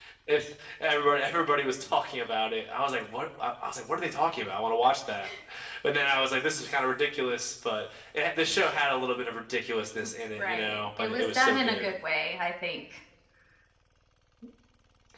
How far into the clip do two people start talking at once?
10.4 s

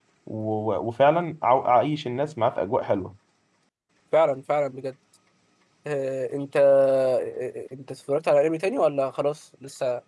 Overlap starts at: none

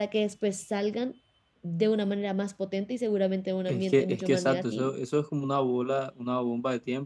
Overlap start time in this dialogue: 3.7 s

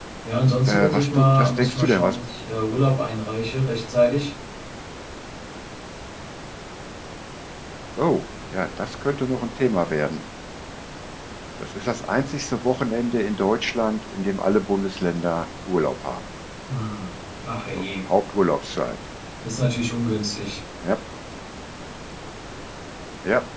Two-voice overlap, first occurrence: 0.7 s

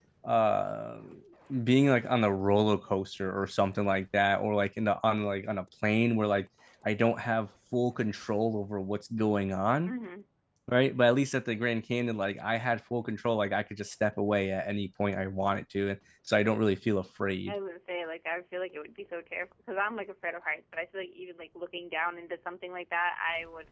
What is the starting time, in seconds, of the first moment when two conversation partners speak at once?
none

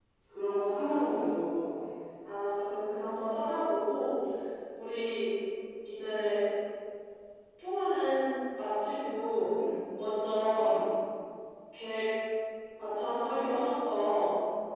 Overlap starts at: none

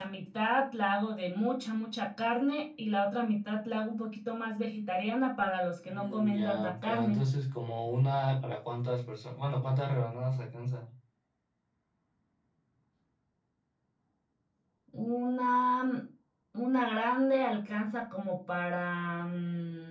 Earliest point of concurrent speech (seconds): 5.8 s

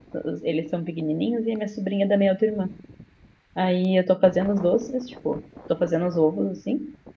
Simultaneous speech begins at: none

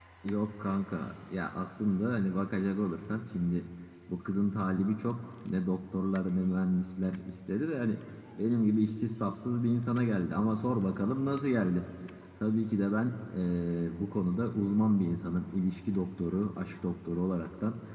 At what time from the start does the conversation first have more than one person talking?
none

